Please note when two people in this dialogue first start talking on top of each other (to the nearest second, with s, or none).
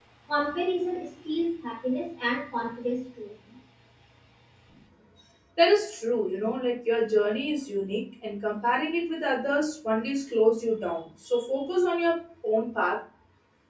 none